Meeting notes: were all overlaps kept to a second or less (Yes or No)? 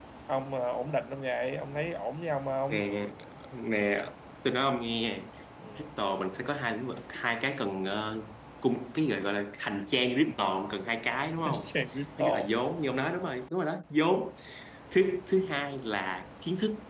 Yes